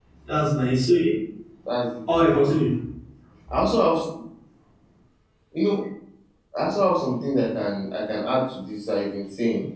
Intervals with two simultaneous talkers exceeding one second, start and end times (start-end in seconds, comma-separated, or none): none